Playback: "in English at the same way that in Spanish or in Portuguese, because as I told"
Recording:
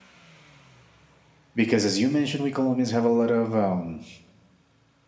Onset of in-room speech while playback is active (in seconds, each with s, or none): 1.6 s